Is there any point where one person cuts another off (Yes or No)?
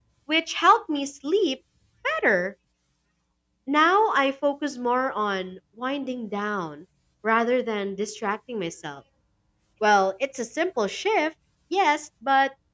No